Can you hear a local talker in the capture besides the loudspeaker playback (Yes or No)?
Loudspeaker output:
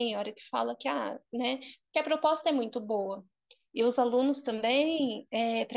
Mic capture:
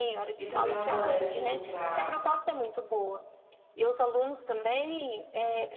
Yes